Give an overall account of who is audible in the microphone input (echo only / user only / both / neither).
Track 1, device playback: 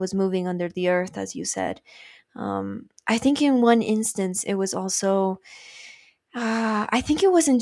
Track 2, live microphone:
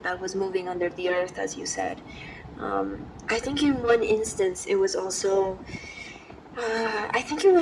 echo only